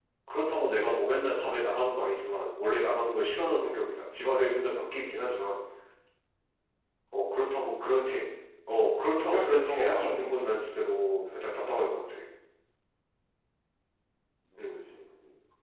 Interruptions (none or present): present